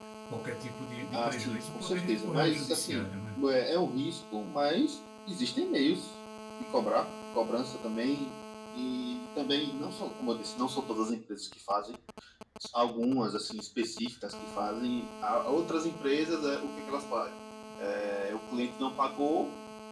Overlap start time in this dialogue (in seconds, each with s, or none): 1.1 s